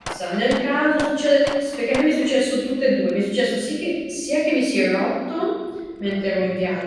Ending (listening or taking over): listening